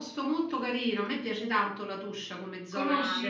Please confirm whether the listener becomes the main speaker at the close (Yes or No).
No